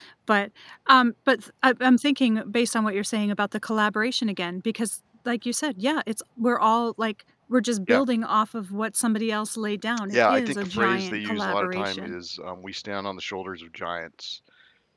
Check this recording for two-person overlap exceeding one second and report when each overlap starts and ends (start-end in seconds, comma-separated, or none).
10.1-12.2